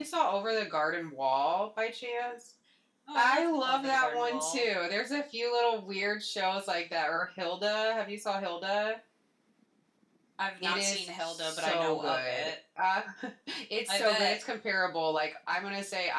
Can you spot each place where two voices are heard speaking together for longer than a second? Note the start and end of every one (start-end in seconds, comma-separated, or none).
3.1-4.6, 10.6-12.5